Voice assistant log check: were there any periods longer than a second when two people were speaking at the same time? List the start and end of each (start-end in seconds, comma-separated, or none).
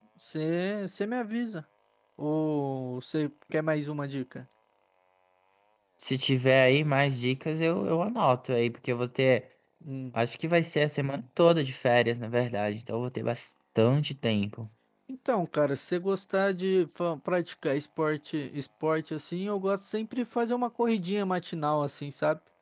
none